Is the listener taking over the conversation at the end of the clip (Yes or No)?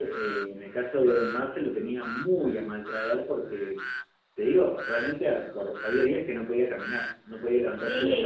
Yes